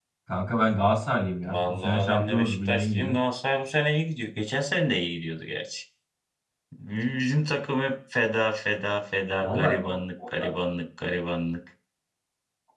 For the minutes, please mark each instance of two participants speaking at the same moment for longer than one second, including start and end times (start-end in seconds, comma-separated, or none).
1.4-3.1